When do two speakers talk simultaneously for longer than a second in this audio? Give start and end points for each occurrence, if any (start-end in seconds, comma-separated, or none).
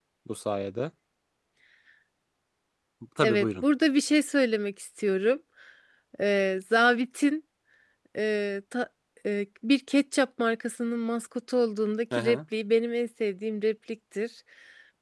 none